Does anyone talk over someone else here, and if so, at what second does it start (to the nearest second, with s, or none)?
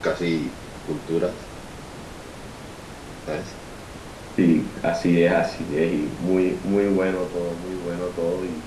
none